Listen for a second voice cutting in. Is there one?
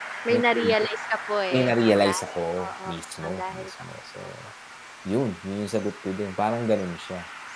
Yes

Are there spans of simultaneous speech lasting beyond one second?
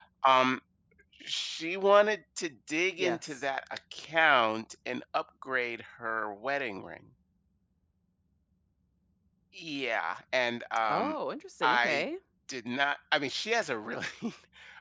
No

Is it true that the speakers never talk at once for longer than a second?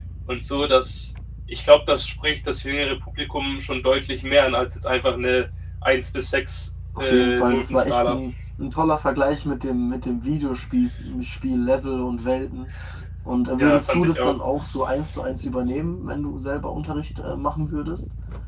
No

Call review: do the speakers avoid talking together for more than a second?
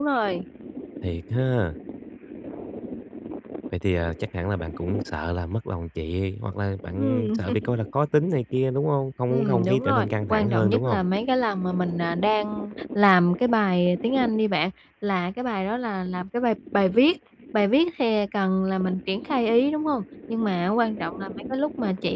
No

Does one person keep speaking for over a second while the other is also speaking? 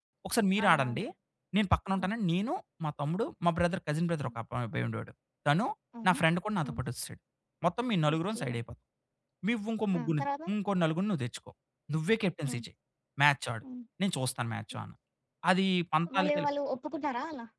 No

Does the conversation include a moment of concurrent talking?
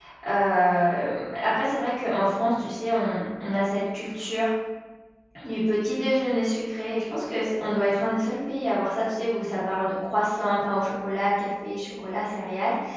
No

